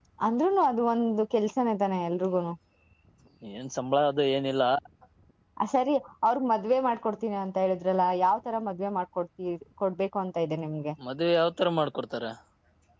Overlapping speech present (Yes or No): No